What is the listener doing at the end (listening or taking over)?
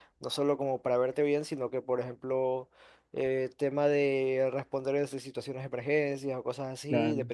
listening